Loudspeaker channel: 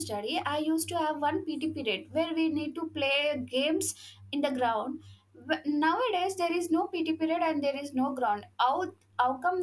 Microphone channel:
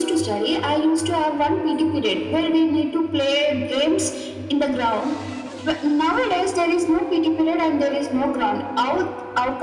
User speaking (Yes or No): No